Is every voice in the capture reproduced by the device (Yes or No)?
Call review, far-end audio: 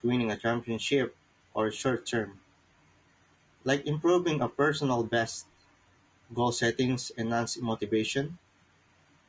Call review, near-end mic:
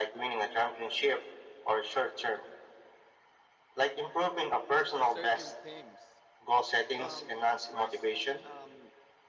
No